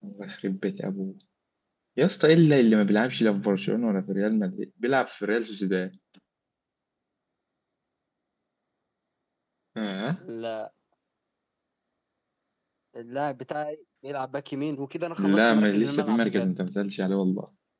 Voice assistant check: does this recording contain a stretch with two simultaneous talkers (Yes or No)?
Yes